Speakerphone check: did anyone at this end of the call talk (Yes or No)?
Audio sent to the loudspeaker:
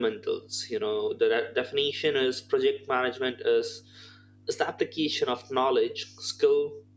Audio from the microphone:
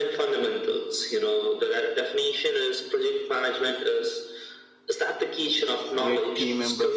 Yes